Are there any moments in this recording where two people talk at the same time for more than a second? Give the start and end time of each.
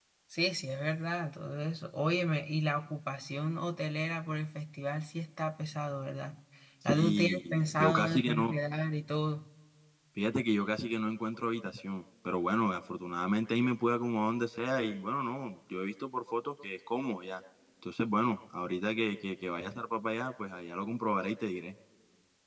6.9-8.5

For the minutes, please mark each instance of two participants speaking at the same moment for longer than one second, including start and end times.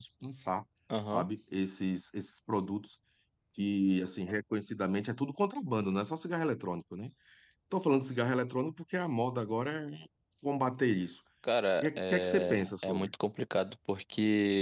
11.8-13.1

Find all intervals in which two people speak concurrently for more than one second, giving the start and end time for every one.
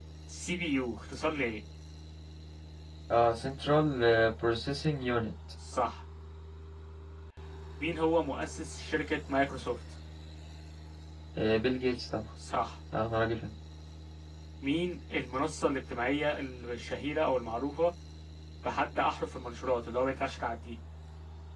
none

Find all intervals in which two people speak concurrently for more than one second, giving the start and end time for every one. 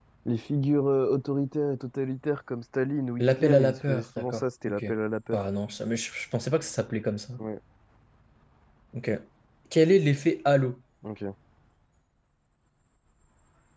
3.2-4.8

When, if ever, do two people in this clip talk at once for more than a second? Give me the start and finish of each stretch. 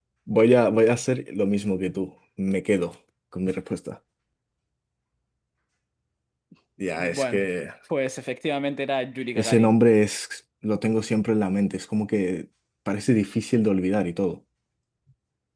none

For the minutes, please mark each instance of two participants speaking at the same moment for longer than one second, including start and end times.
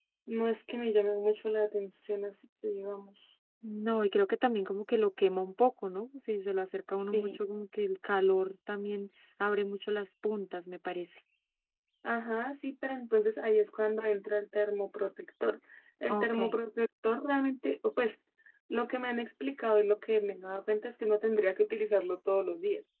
none

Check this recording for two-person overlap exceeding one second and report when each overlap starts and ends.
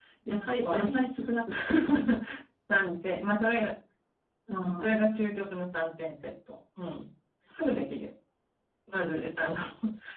none

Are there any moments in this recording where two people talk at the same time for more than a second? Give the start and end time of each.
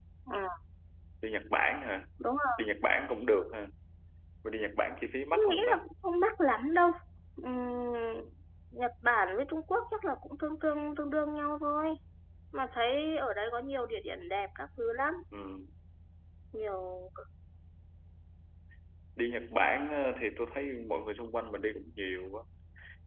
none

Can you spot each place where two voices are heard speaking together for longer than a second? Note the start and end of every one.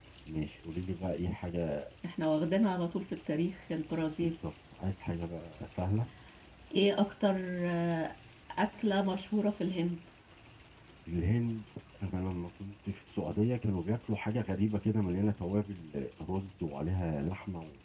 none

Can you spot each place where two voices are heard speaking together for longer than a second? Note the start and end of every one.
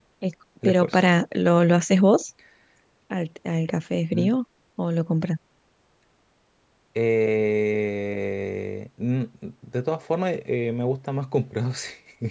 none

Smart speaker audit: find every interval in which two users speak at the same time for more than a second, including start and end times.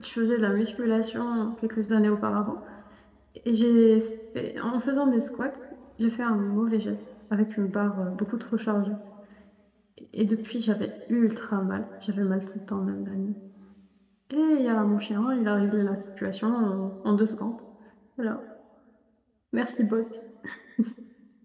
none

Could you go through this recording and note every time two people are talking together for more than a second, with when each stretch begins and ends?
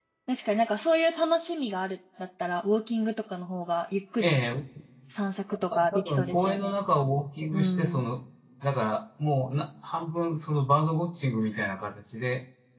5.5-6.7

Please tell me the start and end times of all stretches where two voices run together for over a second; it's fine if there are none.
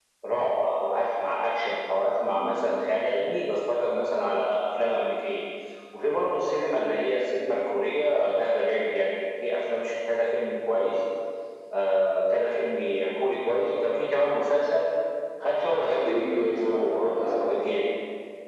16.0-17.5

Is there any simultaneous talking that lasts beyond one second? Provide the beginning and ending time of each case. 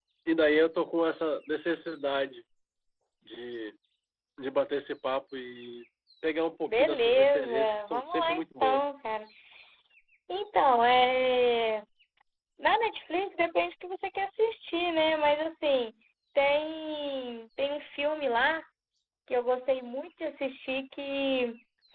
6.7-8.8

